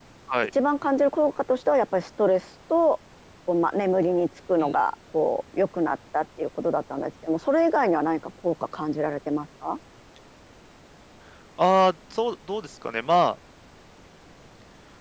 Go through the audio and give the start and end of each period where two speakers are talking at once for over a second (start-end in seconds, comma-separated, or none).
none